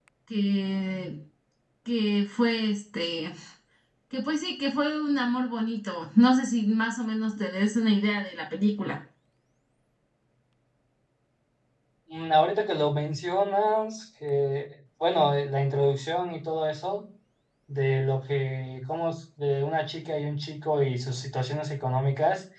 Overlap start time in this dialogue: none

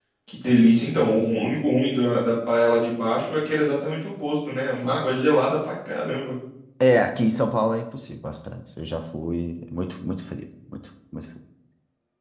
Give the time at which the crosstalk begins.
none

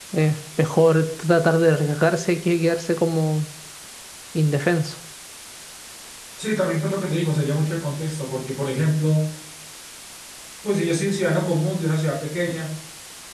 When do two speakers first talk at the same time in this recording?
none

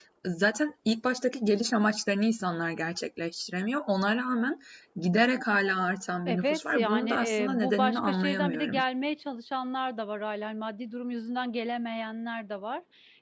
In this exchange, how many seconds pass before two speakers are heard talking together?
6 s

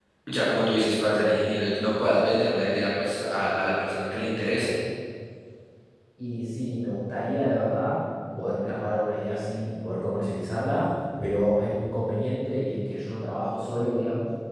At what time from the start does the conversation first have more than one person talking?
none

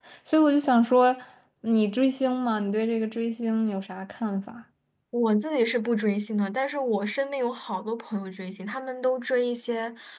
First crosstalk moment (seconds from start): none

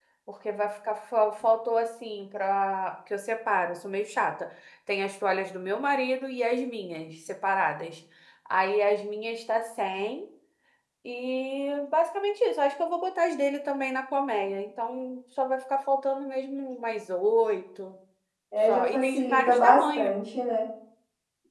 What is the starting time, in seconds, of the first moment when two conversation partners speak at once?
19 s

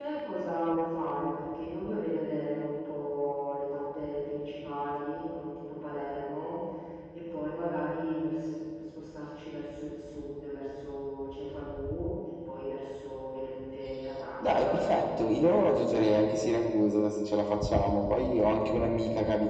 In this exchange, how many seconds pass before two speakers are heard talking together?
14 s

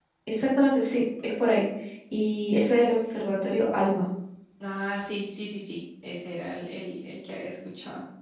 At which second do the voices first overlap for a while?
none

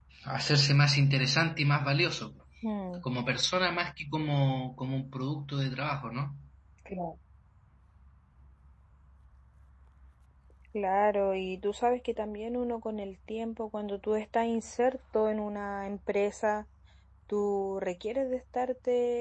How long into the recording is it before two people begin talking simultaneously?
none

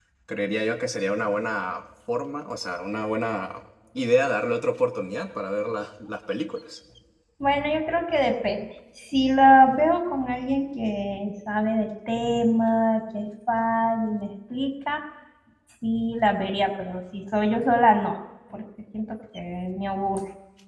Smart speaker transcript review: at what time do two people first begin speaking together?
none

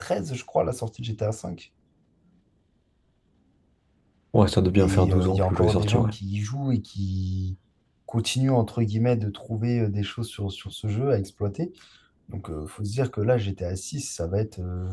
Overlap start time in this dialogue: 5 s

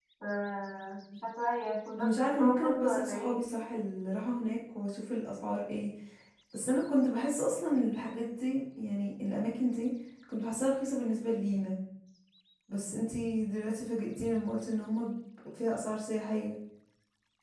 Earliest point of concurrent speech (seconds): 2 s

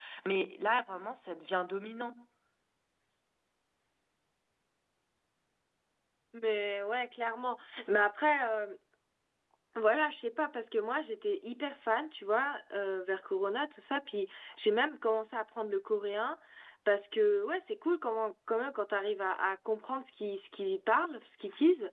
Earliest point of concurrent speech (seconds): none

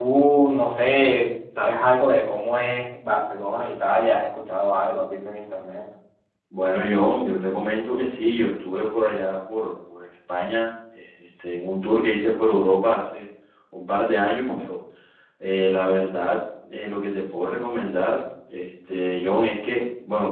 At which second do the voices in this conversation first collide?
none

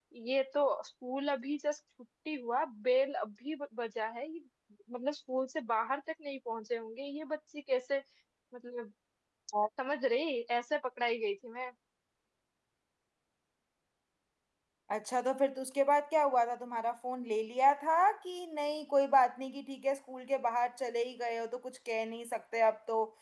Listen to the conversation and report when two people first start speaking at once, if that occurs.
none

